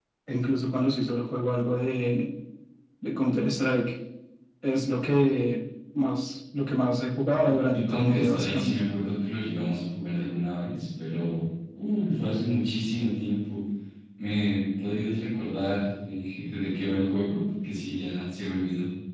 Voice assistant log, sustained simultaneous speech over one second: present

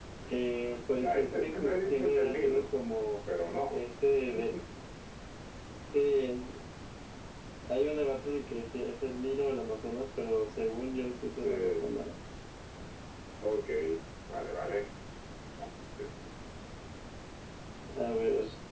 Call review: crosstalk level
present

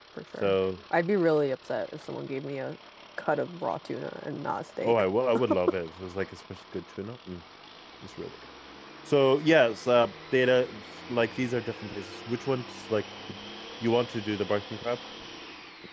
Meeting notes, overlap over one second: none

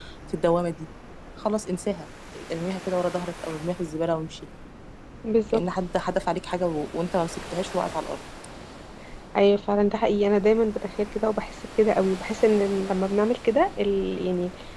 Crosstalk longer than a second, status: none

